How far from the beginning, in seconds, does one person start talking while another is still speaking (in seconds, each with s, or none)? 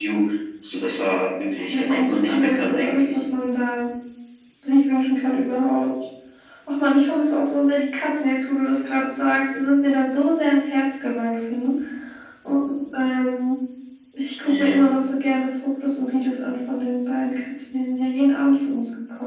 1.7 s